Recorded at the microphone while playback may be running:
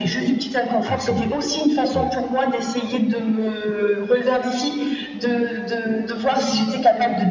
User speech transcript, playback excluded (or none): Ah quand même, ouais,